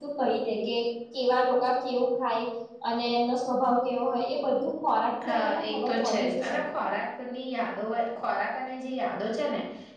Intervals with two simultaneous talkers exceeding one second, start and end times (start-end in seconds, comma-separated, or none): 5.2-6.8